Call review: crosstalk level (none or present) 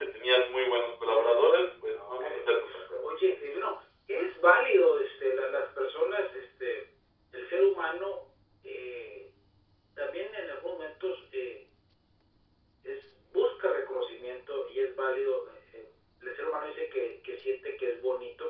present